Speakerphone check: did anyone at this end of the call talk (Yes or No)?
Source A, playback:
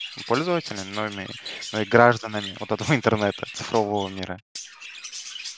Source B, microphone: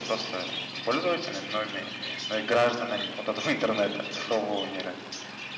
No